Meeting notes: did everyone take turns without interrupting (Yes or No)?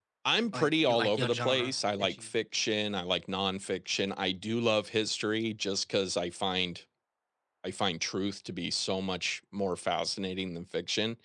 No